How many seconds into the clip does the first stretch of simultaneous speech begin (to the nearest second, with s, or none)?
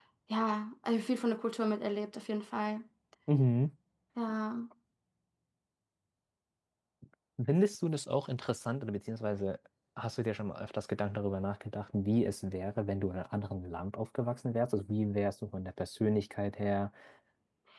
none